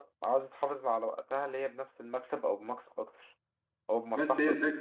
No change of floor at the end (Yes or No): No